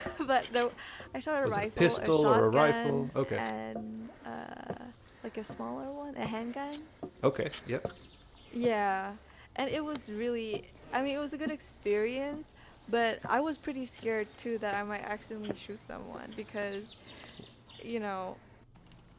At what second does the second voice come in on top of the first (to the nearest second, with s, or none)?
1 s